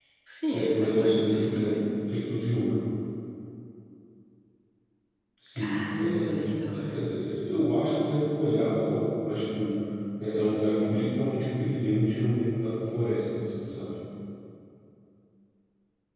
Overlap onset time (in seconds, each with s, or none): 0.5 s